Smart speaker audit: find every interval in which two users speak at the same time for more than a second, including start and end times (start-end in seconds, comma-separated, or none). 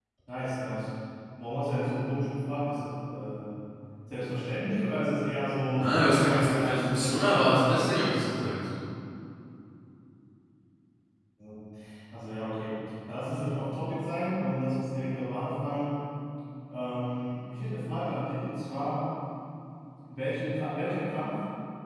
5.8-8.1